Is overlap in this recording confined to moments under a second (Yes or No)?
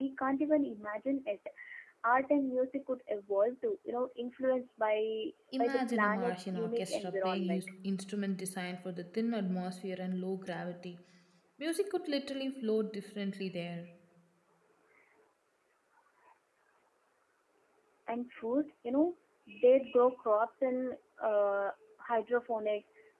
No